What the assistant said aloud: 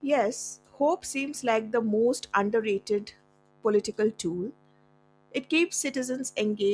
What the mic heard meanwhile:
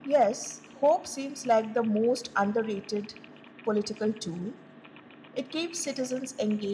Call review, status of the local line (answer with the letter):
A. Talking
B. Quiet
B